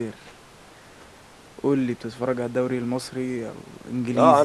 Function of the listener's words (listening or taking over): taking over